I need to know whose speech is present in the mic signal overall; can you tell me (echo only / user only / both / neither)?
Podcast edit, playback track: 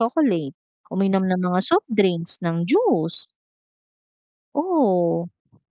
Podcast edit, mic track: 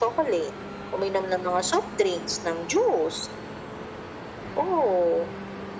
echo only